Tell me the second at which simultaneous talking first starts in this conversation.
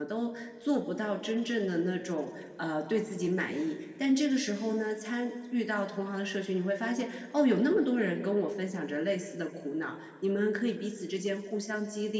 none

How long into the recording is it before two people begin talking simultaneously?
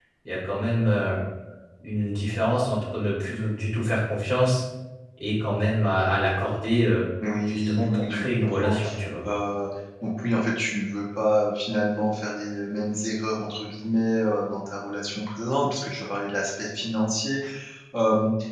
7 s

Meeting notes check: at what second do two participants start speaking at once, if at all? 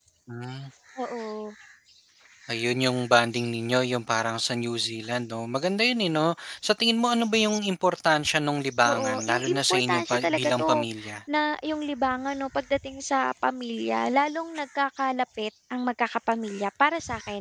9 s

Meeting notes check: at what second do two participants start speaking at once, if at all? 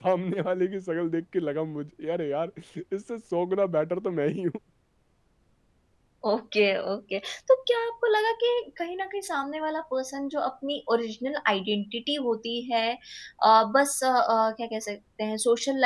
none

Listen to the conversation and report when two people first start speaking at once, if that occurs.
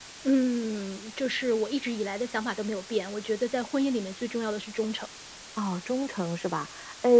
none

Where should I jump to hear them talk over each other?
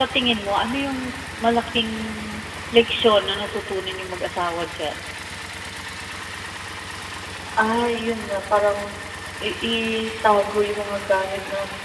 none

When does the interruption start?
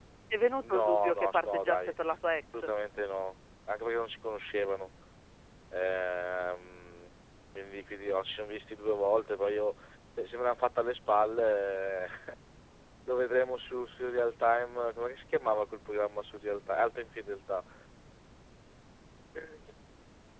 1 s

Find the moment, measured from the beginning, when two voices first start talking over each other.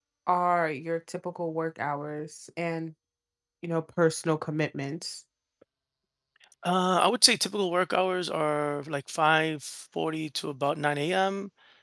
none

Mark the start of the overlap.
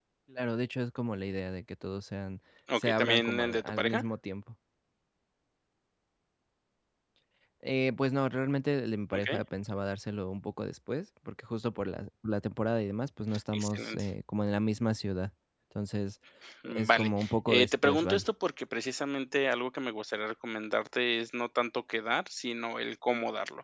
3 s

